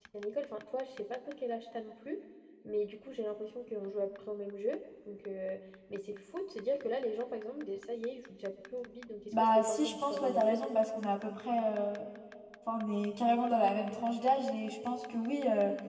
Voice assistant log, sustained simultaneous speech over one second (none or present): present